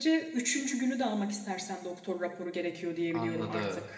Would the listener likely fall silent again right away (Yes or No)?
No